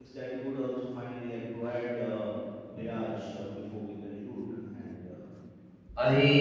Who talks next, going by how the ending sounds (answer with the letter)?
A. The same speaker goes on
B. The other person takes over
B